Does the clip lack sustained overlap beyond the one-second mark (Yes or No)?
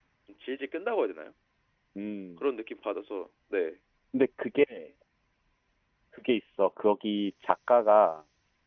Yes